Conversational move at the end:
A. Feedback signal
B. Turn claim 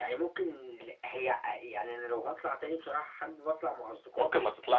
B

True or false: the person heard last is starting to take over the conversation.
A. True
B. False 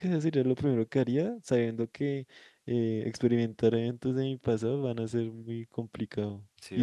B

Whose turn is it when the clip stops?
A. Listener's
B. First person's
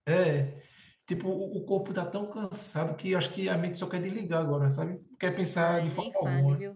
A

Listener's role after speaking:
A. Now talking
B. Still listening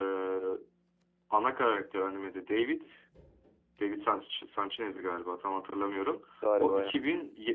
B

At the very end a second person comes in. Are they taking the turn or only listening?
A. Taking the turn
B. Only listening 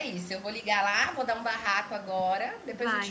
A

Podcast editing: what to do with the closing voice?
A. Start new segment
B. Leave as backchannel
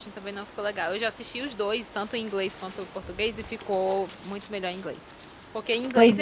B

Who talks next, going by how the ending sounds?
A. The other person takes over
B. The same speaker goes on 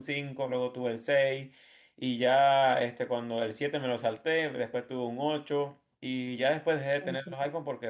B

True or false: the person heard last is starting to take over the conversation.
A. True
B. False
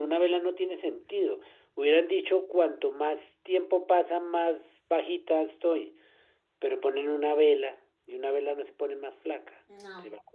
A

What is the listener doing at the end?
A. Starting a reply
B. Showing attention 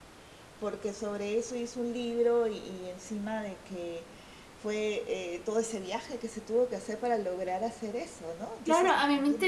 A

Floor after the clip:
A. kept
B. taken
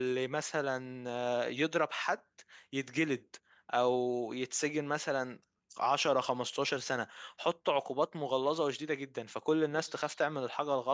A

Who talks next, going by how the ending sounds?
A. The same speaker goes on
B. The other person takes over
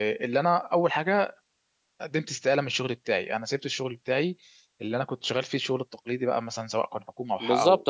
B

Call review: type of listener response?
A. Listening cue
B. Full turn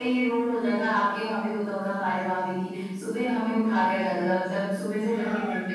A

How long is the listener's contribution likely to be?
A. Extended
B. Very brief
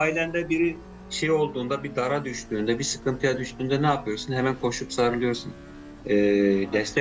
B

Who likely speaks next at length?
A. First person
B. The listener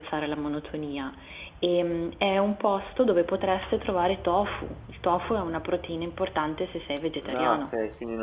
B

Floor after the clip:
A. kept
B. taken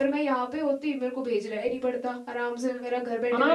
B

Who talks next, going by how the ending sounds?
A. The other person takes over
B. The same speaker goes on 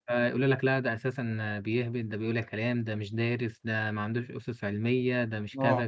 B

